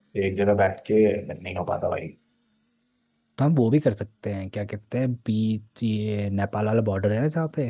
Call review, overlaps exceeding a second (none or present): none